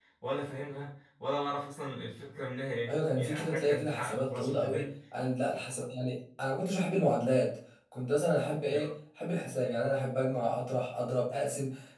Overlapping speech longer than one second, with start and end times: 2.9-4.9

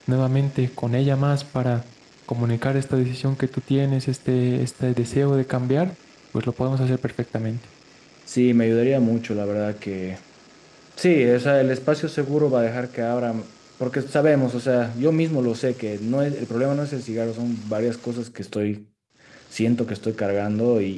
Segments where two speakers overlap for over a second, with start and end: none

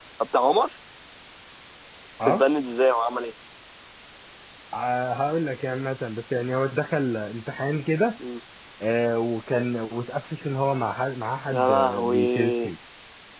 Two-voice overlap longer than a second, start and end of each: 11.5-12.7

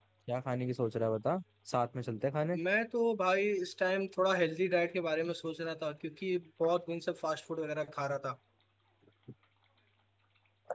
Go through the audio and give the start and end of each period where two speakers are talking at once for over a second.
none

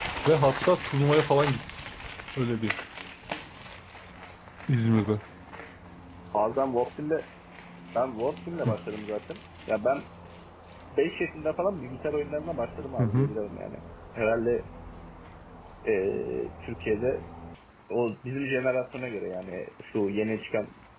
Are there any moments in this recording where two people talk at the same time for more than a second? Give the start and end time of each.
none

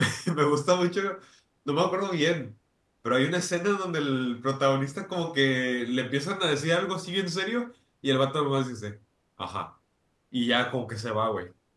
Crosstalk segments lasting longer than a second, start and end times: none

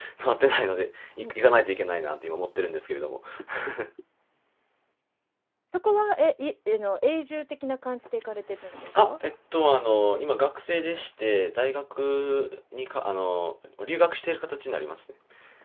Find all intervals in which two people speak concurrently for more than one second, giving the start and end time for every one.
none

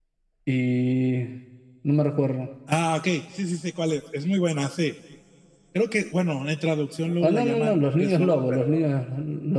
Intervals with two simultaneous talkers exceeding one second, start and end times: 7.2-8.9

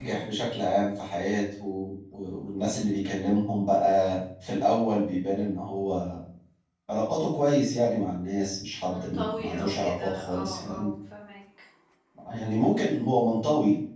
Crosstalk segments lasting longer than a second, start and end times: 8.8-10.9

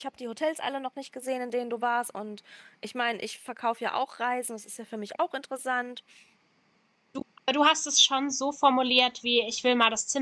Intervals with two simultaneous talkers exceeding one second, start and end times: none

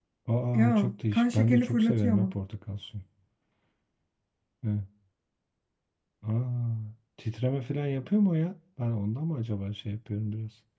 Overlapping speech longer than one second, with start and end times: 0.5-2.3

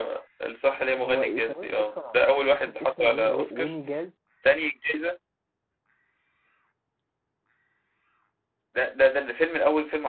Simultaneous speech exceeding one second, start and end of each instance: 1.0-3.7

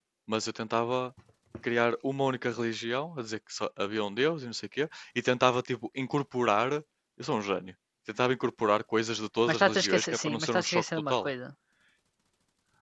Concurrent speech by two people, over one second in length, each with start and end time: 9.5-11.3

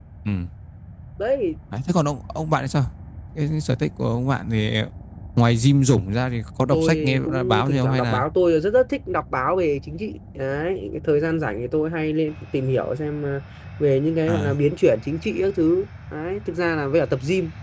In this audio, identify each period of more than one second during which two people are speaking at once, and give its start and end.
6.7-8.2

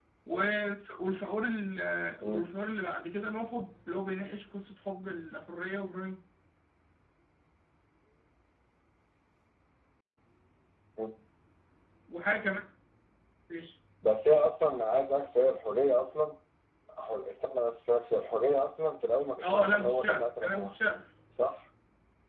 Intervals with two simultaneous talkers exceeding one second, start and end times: 19.4-20.7

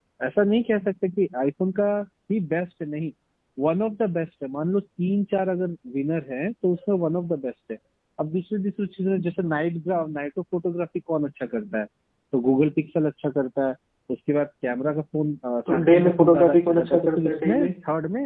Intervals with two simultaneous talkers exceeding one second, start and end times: 15.7-17.7

